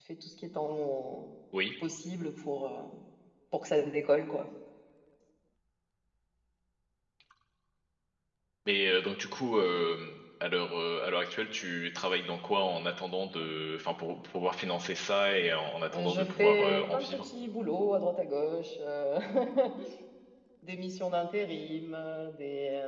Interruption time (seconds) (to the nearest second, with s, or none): 16 s